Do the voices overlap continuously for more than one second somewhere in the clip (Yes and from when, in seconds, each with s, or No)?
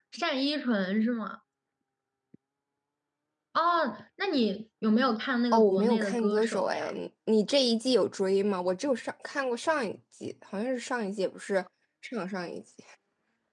Yes, from 5.5 s